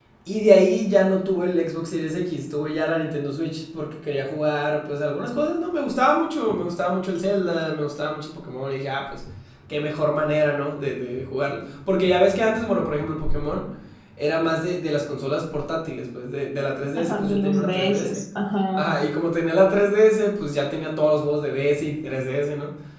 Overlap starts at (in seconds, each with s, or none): 17.0 s